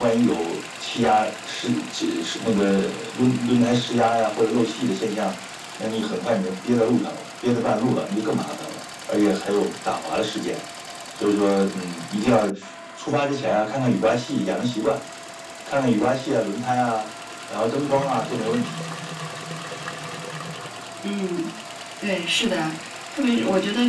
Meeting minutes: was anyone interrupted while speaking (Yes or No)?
No